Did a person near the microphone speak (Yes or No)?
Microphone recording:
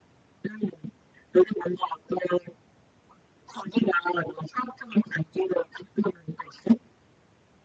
No